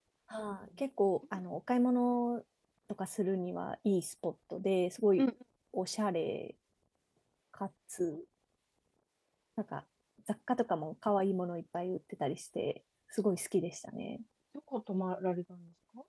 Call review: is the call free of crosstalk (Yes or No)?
Yes